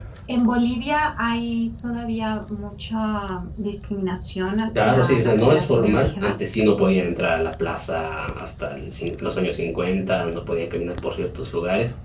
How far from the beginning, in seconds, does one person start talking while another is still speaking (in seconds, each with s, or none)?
4.8 s